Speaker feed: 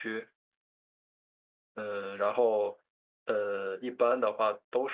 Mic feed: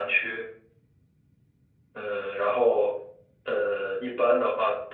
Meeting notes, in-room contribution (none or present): none